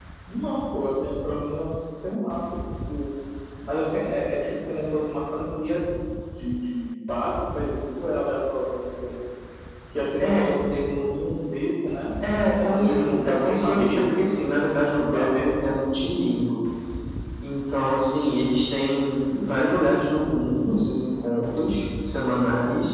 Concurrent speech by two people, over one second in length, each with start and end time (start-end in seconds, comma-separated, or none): 12.6-14.2